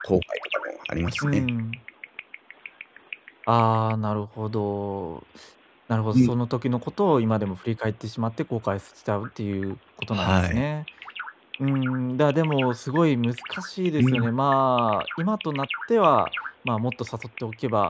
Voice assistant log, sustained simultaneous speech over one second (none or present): none